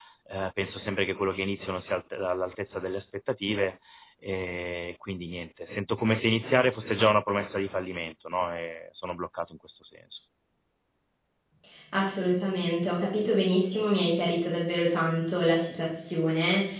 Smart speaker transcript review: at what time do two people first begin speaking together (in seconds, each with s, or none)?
none